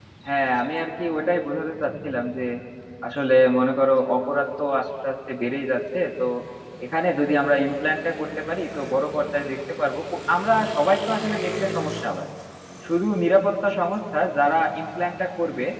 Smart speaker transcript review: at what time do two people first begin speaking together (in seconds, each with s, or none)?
none